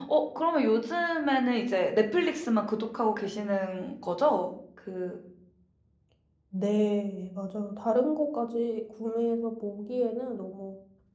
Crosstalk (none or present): none